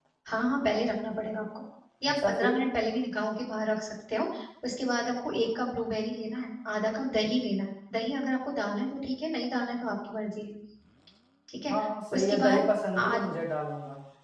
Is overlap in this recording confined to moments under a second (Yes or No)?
Yes